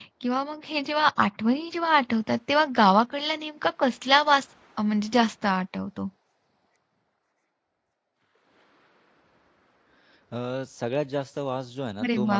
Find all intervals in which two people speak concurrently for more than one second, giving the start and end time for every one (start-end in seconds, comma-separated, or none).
none